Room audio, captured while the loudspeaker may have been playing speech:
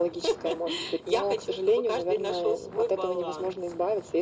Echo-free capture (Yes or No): No